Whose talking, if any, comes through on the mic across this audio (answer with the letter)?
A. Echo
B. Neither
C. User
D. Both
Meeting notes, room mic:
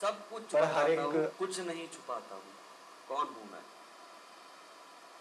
D